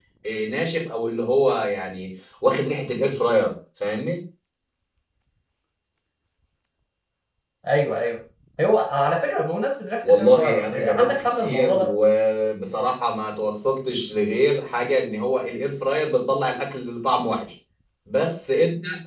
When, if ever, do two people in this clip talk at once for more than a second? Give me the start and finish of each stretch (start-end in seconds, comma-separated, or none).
10.0-11.9